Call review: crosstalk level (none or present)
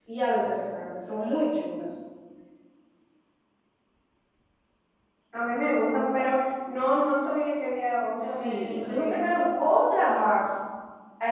present